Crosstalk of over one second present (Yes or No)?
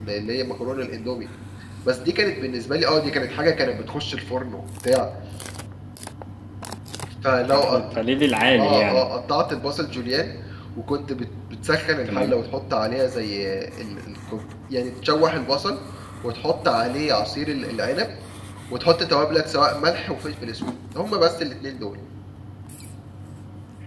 No